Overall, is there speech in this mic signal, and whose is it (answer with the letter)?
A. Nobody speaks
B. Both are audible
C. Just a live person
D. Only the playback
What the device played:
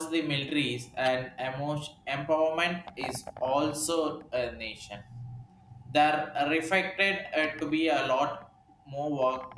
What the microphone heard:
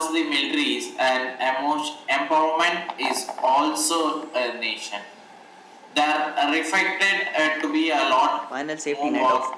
B